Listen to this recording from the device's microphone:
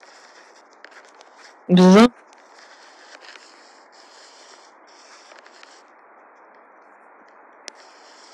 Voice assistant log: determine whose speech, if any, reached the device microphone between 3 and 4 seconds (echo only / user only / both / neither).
neither